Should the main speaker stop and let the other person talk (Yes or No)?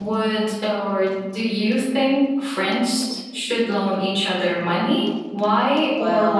Yes